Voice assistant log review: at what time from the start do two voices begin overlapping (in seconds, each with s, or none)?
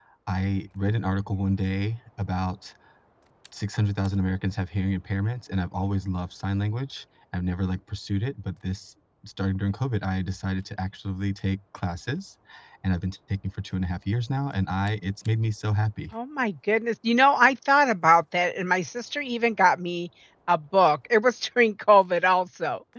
none